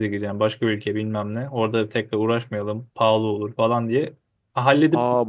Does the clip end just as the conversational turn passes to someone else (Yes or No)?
Yes